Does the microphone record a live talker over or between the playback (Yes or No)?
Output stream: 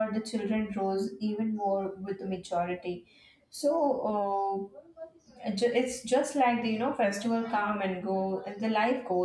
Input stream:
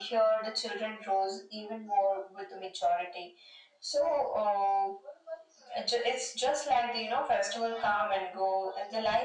No